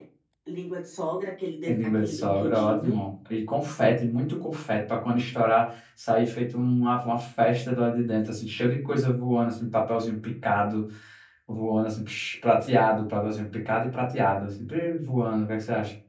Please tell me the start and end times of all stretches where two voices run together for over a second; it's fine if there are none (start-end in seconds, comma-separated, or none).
1.7-3.0